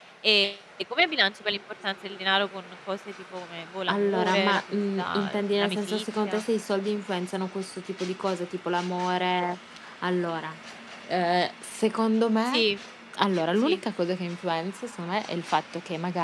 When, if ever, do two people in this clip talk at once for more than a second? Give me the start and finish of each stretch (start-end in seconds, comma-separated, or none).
3.9-6.4